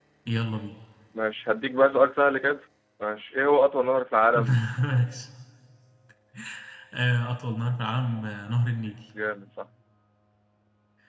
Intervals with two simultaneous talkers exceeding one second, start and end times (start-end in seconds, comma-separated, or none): none